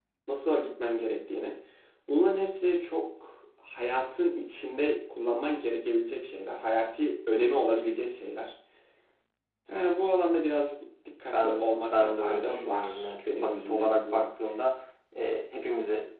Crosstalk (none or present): present